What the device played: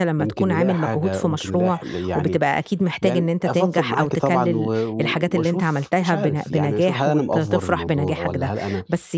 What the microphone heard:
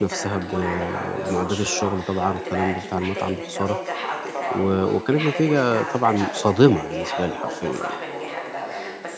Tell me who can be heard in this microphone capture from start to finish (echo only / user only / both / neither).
both